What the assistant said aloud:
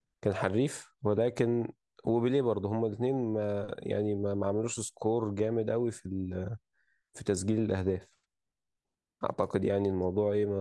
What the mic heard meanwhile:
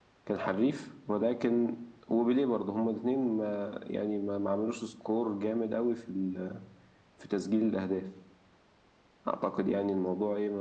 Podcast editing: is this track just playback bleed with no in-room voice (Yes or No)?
Yes